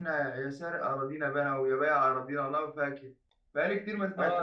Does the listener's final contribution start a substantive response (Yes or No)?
Yes